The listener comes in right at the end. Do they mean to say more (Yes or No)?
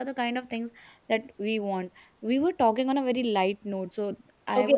Yes